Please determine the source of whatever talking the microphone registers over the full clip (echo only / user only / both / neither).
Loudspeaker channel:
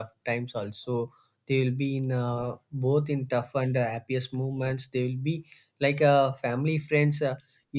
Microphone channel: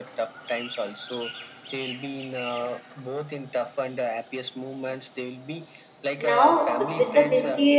both